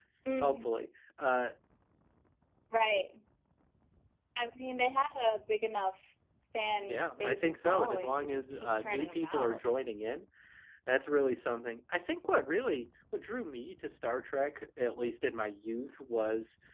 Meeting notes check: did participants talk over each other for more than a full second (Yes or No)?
Yes